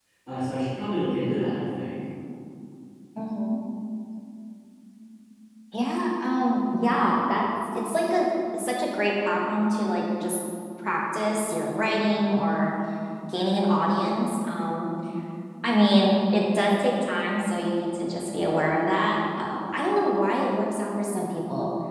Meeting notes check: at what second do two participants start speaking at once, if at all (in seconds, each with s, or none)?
none